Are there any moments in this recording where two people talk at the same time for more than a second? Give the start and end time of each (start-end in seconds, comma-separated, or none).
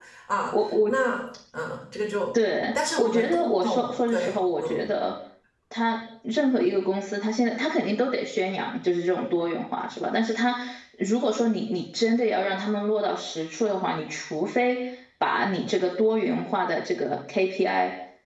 2.8-4.8